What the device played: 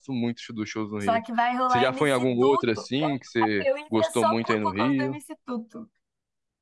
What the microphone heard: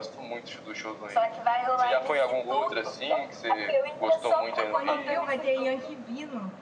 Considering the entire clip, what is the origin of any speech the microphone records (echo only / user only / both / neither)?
both